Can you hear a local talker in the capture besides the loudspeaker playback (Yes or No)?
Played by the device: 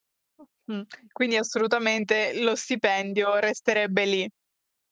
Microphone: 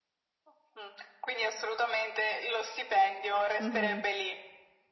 Yes